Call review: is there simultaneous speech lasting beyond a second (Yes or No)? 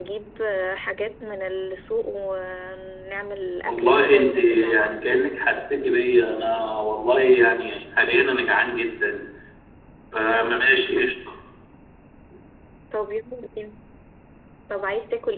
Yes